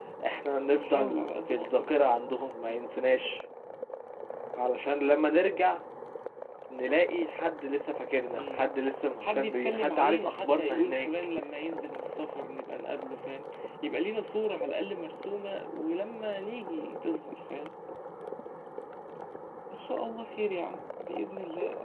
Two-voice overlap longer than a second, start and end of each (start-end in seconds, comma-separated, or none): 0.8-2.2, 9.2-11.1